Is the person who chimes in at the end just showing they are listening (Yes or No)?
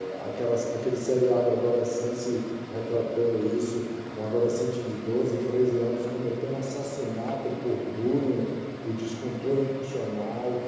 Yes